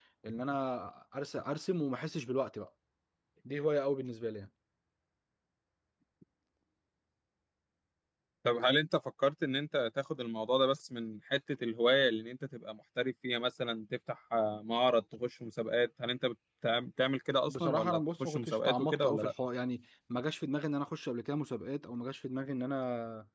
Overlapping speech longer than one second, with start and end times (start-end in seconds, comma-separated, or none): 17.5-19.3